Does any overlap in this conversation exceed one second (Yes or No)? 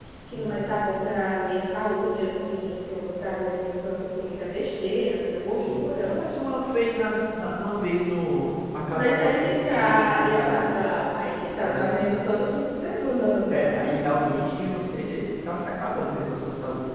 Yes